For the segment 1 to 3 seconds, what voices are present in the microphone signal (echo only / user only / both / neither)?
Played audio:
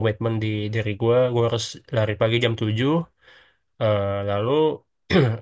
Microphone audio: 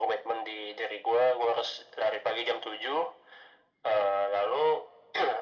echo only